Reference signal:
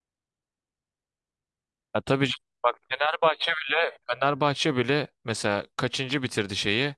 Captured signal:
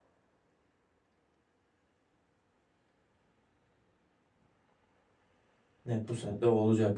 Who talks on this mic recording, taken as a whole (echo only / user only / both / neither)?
user only